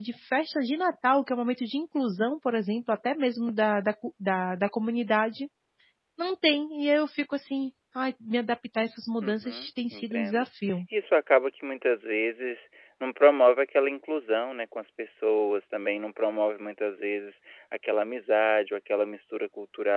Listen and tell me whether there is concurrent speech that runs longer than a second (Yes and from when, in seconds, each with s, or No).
Yes, from 9.2 s